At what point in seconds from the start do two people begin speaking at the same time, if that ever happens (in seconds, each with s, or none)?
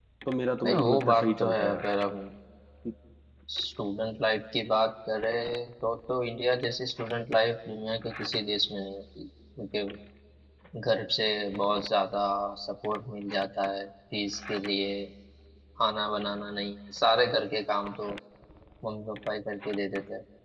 0.6 s